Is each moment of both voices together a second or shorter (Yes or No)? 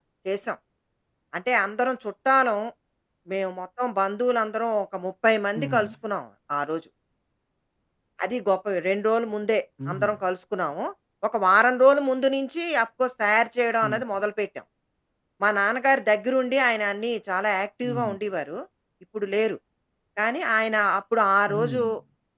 Yes